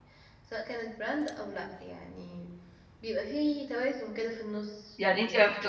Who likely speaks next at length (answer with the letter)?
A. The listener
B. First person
A